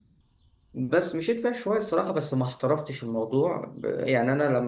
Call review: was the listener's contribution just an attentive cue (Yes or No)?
Yes